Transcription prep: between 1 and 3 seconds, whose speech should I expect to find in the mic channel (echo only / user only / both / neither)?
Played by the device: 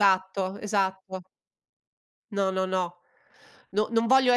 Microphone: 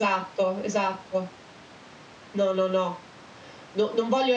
echo only